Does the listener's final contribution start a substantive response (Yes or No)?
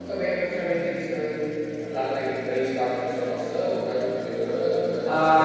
Yes